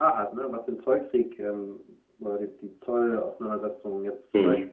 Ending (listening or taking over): listening